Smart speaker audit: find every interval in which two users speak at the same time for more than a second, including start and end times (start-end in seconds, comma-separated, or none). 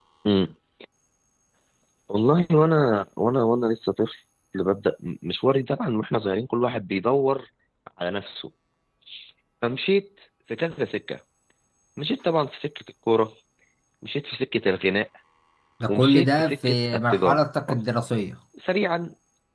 15.9-17.4